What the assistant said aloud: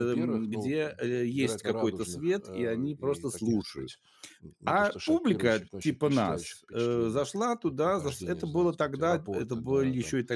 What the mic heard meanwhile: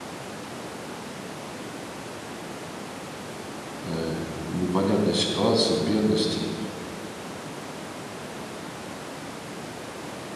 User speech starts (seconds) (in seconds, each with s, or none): 3.8 s